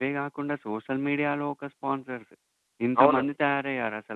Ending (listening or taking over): listening